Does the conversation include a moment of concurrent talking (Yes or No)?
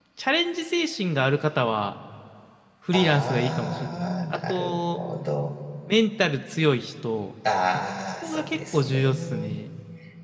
Yes